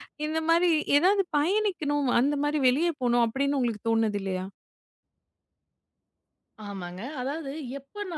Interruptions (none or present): none